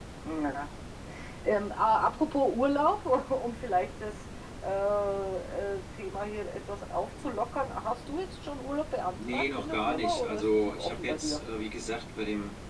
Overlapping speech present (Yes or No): Yes